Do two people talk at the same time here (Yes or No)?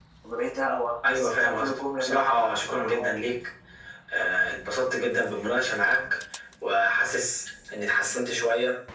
Yes